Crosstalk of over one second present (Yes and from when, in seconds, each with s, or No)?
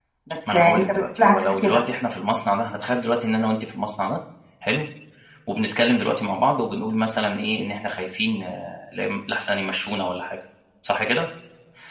Yes, from 0.5 s